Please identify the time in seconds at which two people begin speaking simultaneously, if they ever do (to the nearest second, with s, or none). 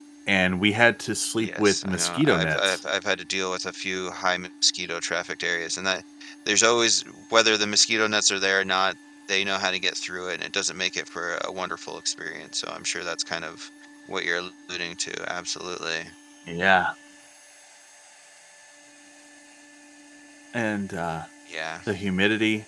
1 s